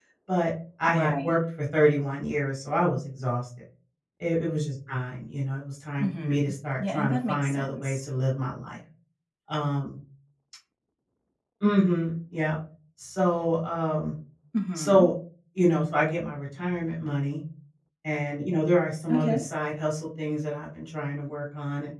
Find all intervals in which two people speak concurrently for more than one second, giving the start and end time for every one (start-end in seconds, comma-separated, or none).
6.0-8.0